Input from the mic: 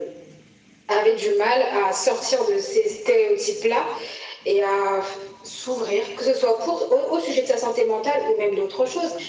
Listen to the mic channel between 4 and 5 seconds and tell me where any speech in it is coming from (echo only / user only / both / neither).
echo only